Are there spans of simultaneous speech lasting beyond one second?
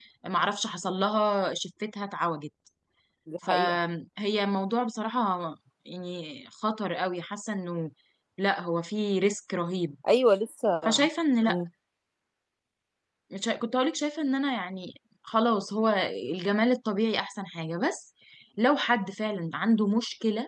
No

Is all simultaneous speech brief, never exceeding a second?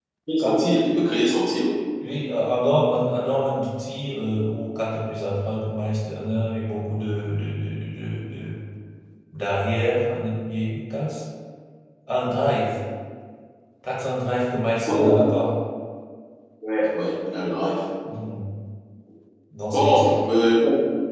Yes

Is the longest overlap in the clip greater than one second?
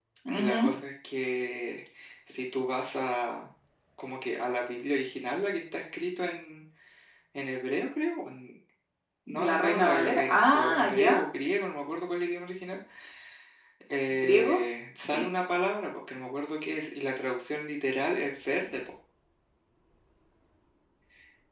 Yes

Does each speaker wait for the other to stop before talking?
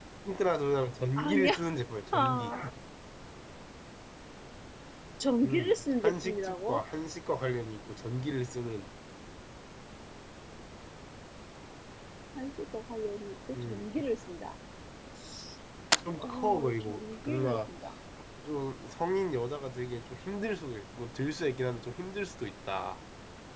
No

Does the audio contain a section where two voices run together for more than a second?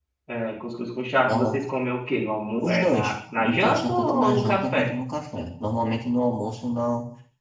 Yes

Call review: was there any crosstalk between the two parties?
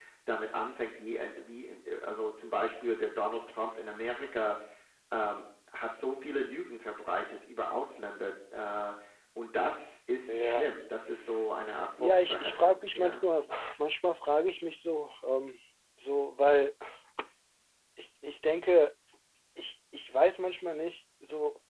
Yes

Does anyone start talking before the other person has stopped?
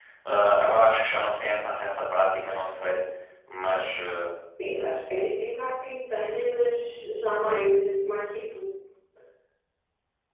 No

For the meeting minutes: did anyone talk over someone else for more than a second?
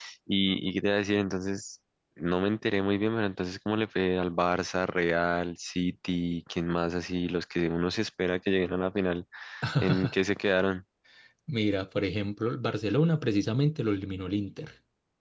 No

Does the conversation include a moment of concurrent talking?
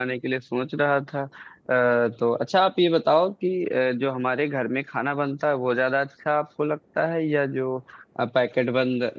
No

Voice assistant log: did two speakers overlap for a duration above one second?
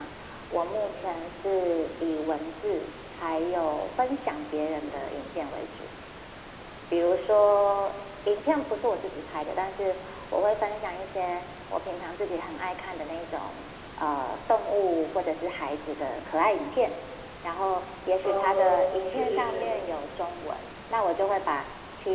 Yes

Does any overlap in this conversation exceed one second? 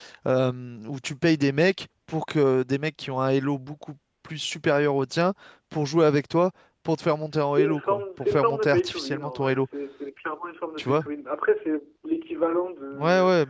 Yes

